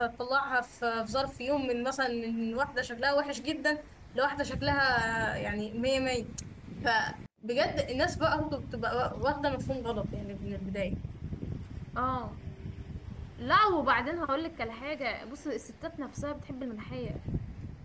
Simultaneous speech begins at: none

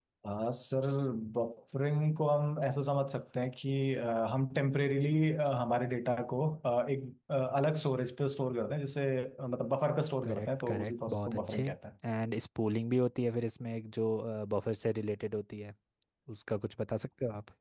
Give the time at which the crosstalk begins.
10.2 s

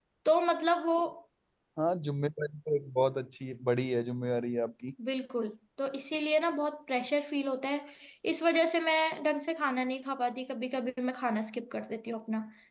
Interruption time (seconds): none

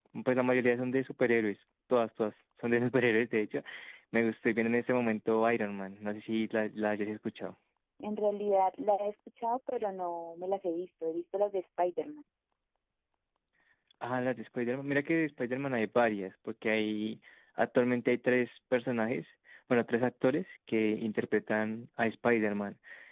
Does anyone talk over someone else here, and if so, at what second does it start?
none

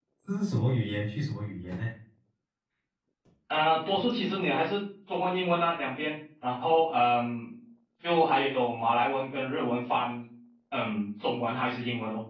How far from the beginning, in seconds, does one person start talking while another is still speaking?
none

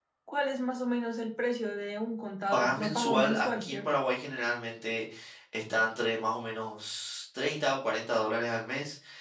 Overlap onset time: 2.5 s

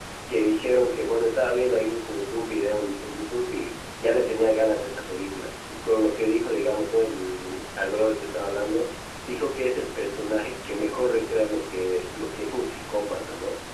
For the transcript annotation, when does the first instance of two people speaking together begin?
none

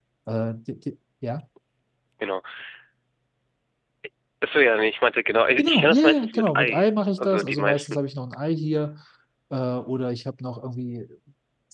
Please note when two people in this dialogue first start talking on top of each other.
5.6 s

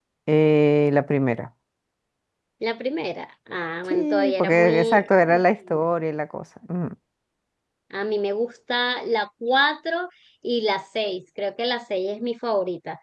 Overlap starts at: 3.9 s

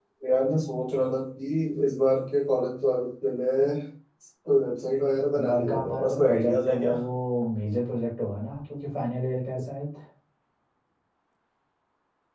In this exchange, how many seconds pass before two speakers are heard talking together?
5.3 s

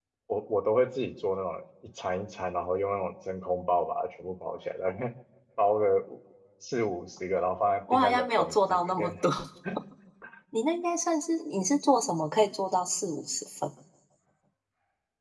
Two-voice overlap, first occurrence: 7.9 s

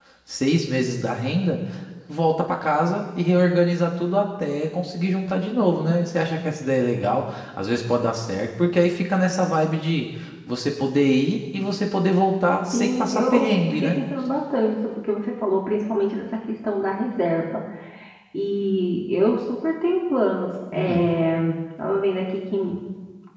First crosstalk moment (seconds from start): 12.7 s

